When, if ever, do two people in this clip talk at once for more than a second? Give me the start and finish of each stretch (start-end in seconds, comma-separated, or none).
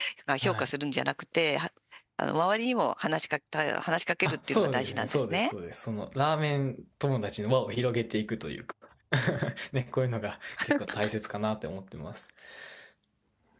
4.2-5.5